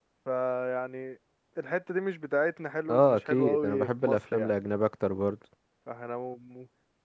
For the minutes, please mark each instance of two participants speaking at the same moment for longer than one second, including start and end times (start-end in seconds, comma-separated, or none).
2.9-4.5